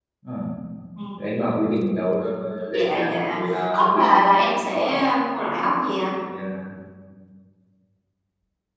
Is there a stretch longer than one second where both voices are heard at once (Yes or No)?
Yes